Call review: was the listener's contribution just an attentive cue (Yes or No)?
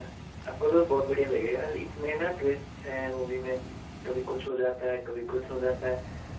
Yes